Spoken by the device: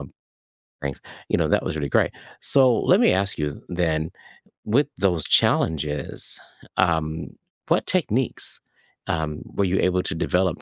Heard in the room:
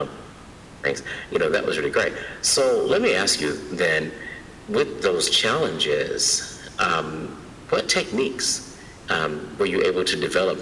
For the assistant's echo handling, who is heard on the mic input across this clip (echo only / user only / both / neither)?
echo only